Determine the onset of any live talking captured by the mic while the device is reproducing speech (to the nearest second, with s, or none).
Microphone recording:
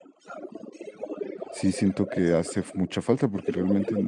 1 s